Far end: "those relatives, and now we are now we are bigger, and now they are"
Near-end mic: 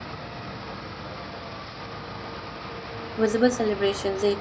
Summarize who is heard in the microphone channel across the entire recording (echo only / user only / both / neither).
user only